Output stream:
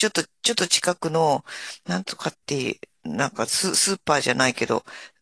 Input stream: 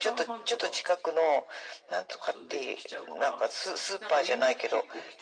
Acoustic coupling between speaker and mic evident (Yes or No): Yes